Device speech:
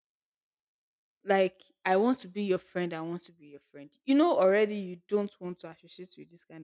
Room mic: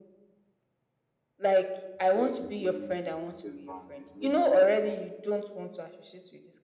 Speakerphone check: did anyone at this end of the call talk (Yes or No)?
Yes